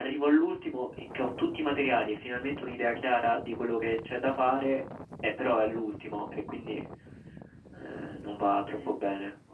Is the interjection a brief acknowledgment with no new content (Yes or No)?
No